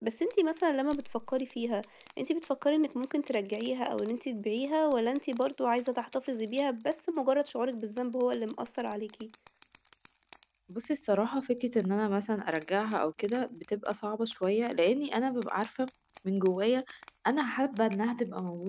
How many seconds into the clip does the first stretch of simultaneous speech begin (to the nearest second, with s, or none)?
none